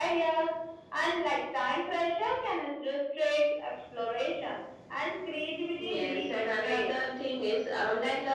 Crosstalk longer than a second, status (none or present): present